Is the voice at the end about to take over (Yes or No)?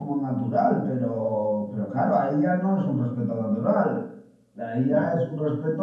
No